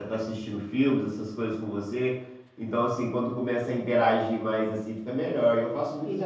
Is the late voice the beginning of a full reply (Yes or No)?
Yes